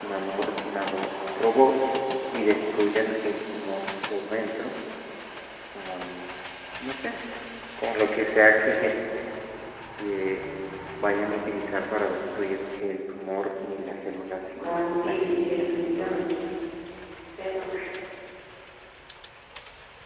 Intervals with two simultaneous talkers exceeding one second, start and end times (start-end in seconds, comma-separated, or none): 15.1-16.3